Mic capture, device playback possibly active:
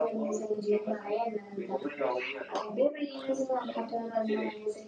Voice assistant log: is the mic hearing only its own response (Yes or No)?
Yes